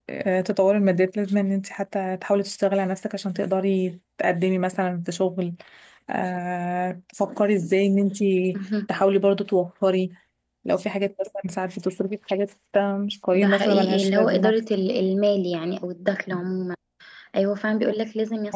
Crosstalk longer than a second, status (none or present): present